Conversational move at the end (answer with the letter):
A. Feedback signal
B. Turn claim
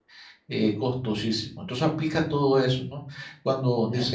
A